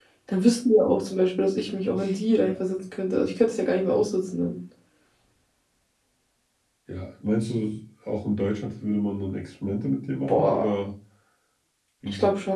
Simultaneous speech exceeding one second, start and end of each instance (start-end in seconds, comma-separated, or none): none